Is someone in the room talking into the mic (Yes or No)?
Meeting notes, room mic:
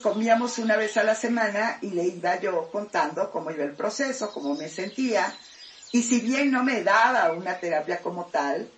No